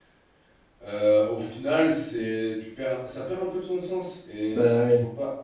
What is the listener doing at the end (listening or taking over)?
listening